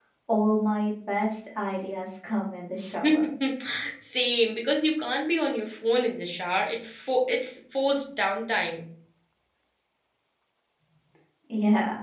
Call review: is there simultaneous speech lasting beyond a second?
No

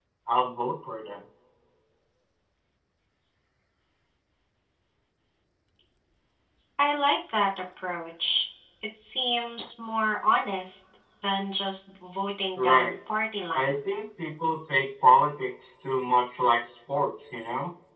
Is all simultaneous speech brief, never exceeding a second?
Yes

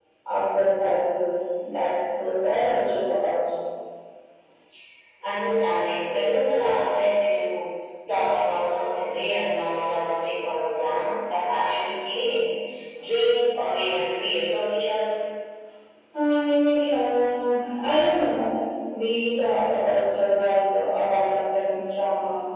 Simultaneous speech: No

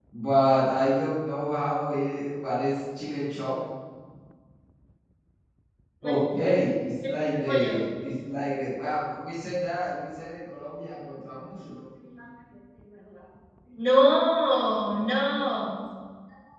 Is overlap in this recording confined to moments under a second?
Yes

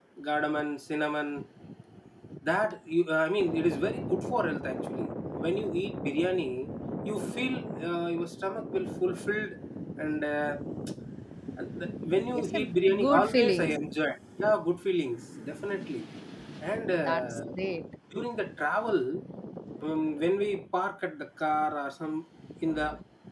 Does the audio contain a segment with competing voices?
Yes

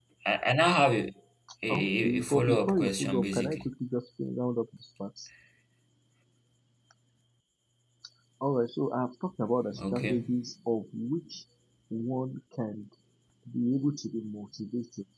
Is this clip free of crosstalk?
No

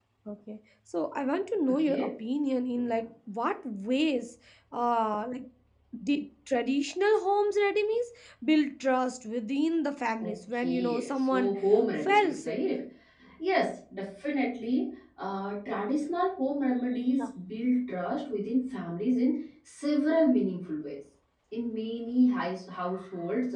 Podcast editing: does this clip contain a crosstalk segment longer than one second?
Yes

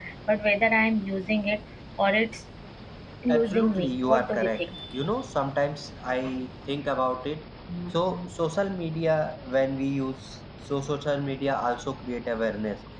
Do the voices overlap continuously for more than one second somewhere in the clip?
Yes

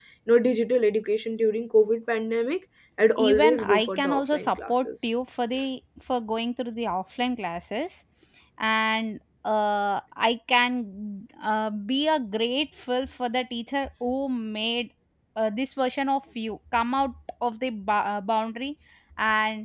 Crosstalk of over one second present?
Yes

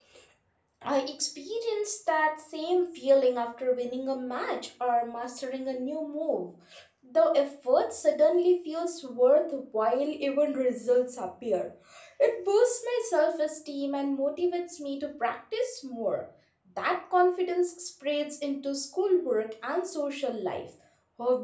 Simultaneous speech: No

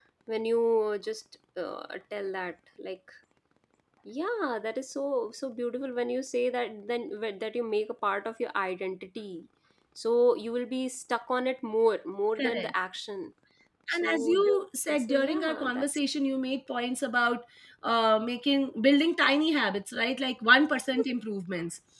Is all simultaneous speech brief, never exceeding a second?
No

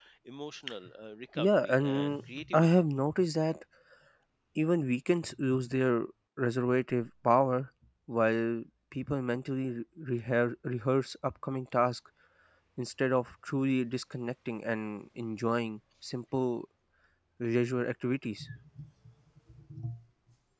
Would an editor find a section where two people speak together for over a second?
Yes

